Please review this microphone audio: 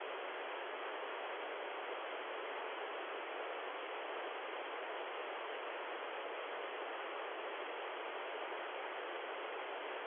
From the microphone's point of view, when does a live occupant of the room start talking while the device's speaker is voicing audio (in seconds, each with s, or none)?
none